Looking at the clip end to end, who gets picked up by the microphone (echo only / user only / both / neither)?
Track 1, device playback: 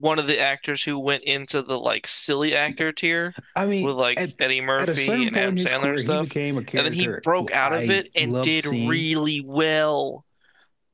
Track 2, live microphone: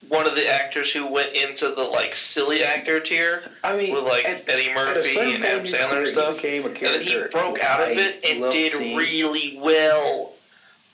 echo only